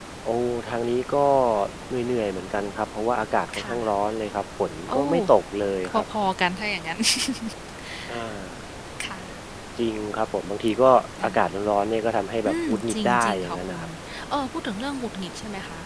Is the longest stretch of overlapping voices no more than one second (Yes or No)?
No